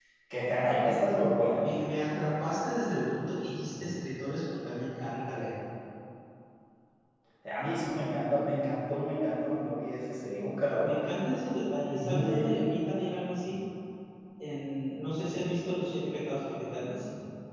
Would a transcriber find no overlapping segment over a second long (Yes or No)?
Yes